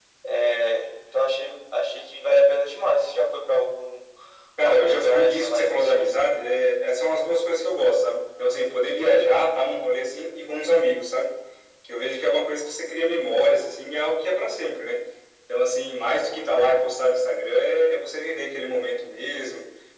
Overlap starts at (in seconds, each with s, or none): 4.6 s